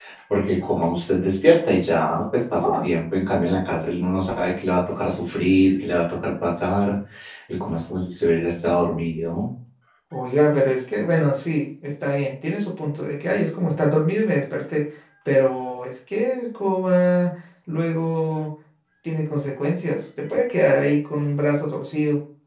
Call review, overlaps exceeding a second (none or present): none